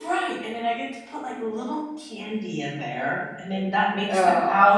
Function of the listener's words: listening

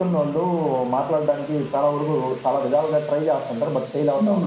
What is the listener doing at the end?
taking over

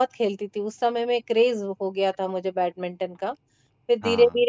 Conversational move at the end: listening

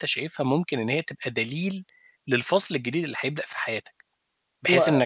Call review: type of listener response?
listening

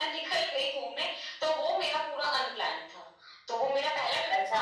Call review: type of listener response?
taking over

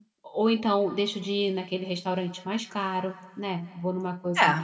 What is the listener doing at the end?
listening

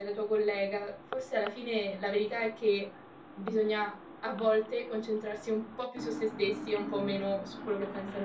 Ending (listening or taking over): taking over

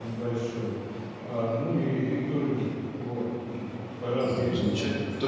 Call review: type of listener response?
taking over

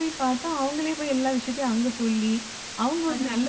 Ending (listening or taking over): listening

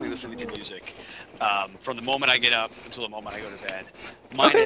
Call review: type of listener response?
listening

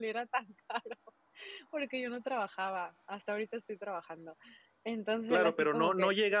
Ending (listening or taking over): taking over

